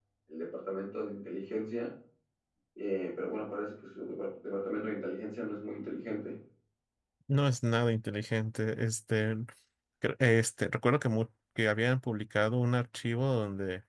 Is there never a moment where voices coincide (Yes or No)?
Yes